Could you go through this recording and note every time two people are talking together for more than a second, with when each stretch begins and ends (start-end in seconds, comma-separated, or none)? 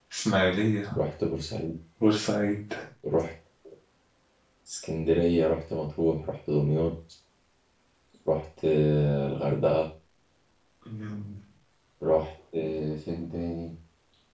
none